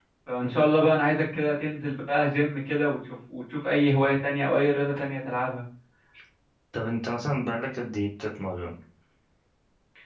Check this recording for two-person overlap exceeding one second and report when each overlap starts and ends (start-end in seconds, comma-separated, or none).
none